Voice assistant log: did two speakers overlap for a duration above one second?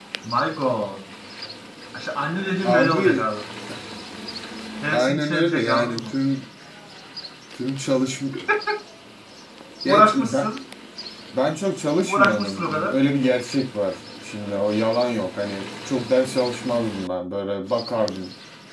Yes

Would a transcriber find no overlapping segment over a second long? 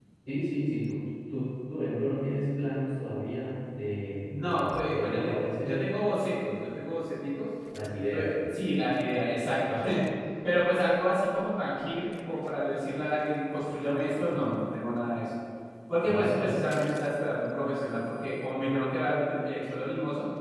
No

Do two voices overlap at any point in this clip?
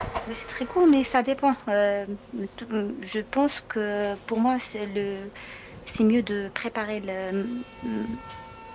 No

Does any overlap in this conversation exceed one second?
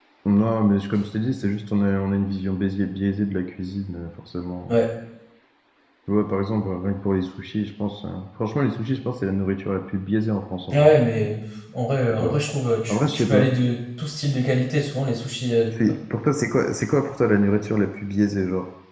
No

